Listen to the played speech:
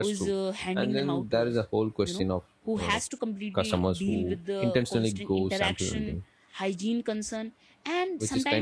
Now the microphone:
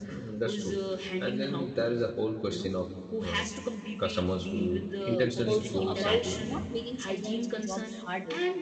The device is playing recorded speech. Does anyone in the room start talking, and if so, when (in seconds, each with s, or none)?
5.0 s